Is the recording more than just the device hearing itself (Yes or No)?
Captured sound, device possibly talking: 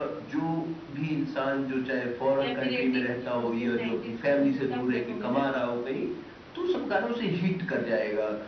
Yes